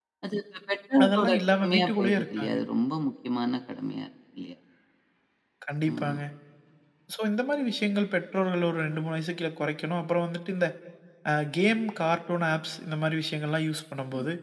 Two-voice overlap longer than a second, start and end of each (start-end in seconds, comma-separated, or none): 1.0-2.6